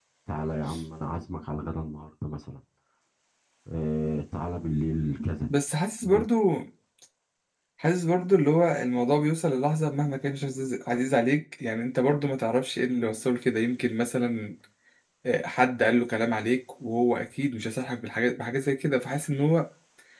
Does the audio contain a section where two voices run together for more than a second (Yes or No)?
No